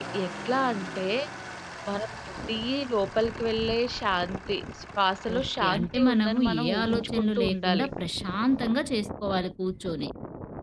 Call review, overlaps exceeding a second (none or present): present